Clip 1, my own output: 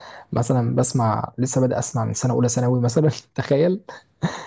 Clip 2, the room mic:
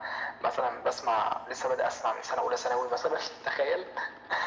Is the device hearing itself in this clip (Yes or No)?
Yes